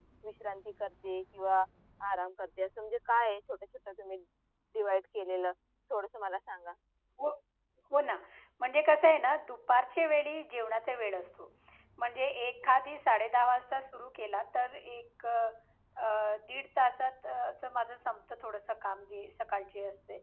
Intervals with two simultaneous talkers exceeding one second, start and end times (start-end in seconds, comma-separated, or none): none